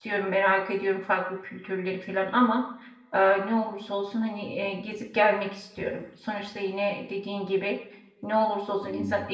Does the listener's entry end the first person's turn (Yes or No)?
No